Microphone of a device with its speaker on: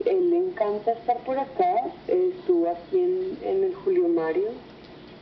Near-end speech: none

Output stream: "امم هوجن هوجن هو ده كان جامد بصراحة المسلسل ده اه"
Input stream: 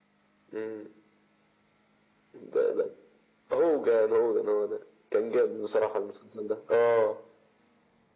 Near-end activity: none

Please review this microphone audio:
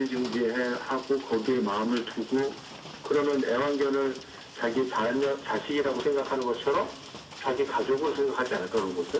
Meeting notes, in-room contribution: none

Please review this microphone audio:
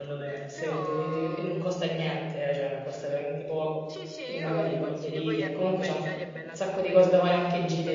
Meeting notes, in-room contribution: present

